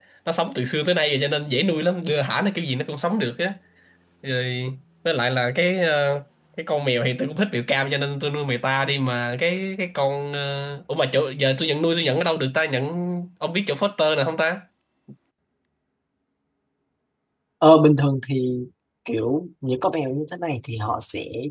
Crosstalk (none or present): none